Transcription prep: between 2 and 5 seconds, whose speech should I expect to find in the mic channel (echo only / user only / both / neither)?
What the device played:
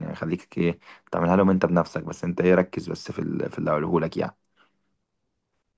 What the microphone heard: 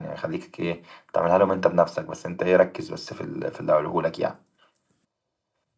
echo only